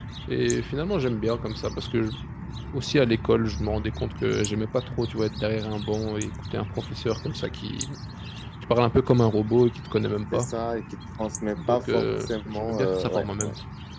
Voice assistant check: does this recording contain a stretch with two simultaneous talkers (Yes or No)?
Yes